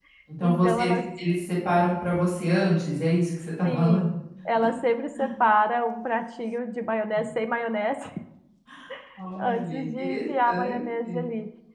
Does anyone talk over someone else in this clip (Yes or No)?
Yes